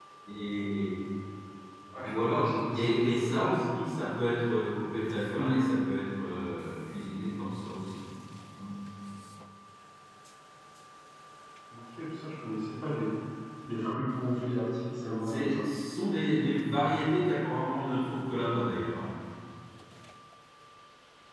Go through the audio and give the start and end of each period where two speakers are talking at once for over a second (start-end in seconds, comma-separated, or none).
2.0-3.6